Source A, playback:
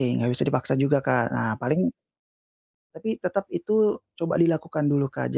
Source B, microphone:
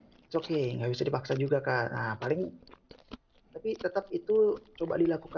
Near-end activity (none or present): none